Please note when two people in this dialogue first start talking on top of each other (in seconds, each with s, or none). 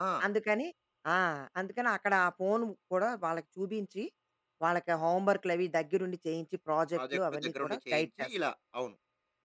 7.0 s